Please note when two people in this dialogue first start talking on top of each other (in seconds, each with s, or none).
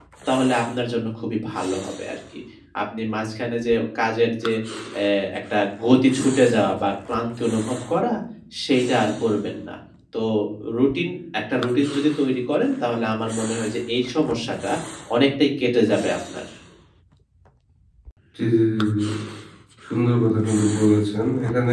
none